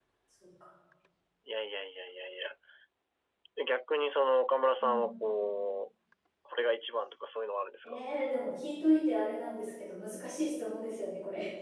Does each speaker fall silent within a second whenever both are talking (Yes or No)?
Yes